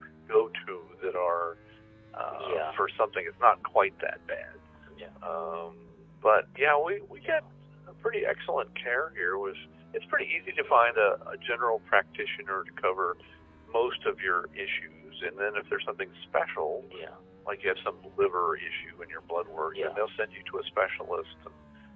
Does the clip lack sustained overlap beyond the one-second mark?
Yes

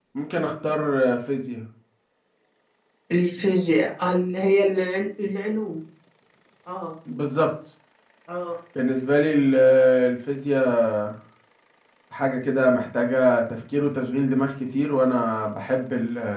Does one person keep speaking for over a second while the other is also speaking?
No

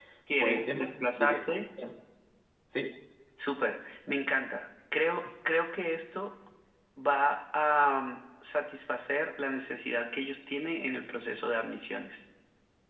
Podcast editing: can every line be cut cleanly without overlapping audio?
No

